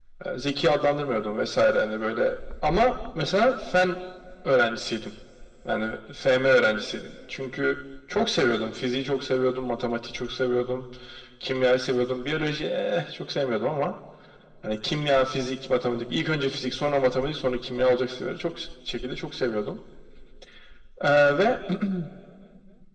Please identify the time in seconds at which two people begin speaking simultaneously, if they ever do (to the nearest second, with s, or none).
none